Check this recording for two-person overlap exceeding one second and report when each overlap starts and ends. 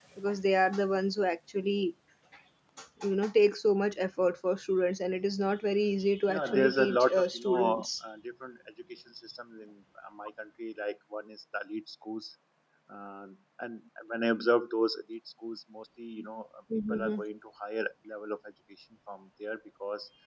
6.3-7.9

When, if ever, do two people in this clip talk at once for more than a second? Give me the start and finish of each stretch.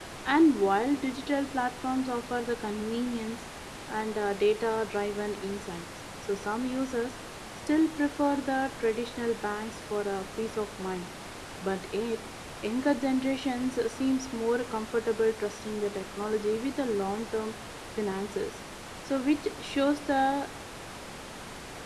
none

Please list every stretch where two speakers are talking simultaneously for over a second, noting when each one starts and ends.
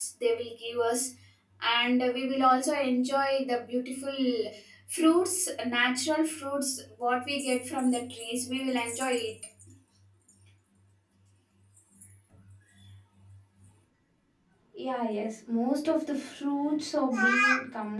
none

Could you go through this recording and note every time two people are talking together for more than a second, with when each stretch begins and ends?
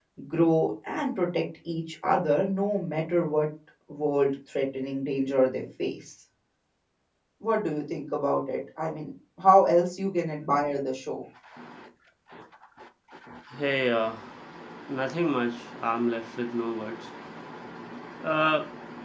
none

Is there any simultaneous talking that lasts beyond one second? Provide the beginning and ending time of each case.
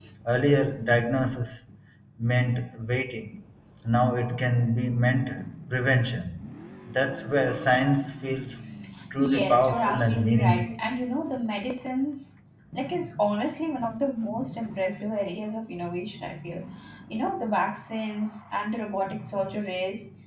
9.2-10.8

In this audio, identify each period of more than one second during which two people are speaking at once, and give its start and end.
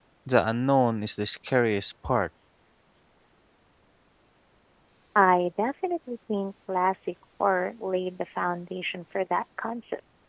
none

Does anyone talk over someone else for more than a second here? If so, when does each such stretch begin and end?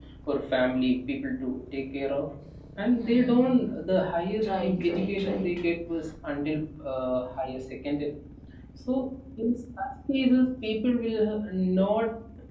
4.4-5.6

